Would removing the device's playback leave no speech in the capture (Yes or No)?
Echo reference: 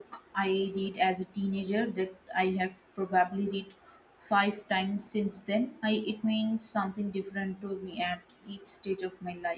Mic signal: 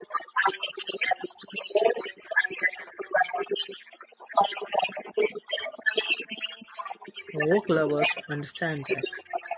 No